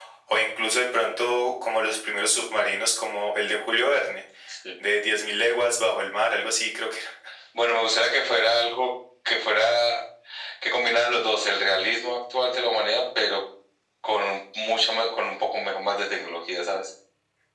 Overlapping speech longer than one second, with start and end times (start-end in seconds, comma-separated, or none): none